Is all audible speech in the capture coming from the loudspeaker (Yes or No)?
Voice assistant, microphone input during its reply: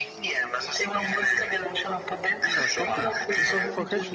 No